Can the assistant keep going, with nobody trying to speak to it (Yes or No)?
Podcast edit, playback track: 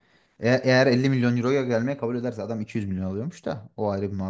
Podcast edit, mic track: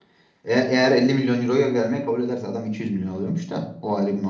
Yes